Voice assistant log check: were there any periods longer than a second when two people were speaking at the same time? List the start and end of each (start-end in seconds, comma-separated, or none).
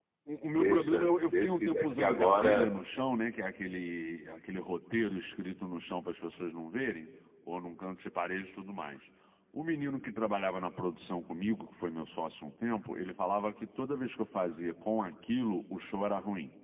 0.6-2.7